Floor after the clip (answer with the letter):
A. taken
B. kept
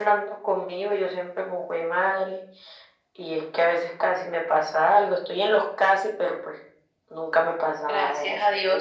A